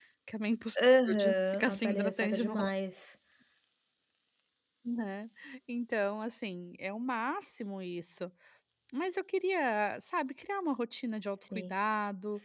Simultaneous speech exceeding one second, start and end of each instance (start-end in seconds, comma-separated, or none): 1.1-2.7